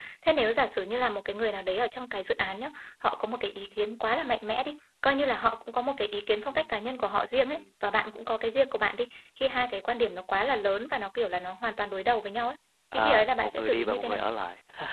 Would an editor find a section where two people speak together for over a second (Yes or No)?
Yes